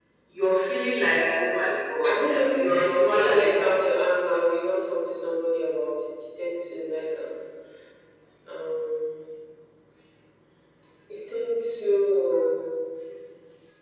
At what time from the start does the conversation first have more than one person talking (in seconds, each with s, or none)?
2.0 s